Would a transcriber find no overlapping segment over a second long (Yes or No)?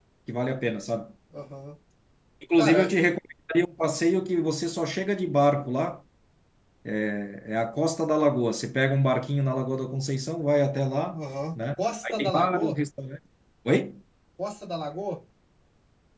No